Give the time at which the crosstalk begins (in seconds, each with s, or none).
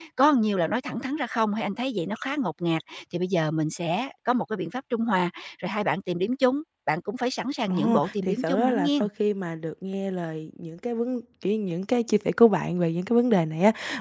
7.7 s